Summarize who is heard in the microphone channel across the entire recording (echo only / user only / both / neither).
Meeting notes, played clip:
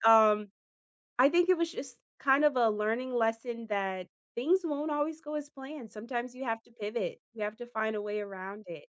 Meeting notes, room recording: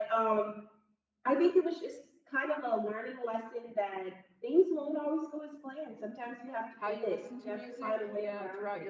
both